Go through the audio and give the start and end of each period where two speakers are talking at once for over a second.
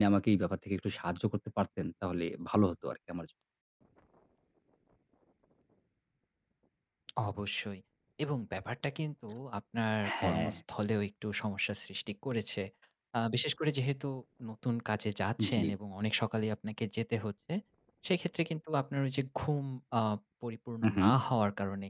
none

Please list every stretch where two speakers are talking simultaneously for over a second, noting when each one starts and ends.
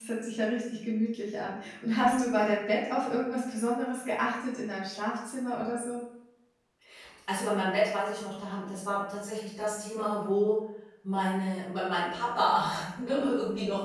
none

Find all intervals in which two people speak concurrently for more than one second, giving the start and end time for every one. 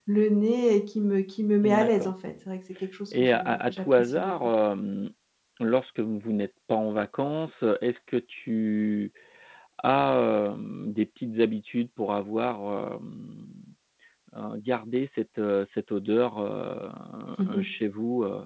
3.1-4.3

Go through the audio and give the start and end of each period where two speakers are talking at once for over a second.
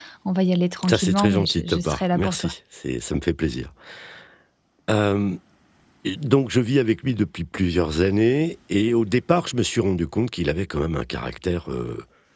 0.9-2.5

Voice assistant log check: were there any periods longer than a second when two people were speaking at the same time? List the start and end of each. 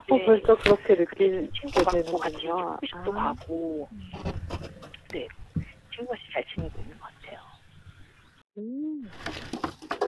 1.1-3.2

